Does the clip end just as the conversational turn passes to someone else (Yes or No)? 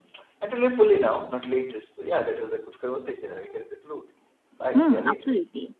Yes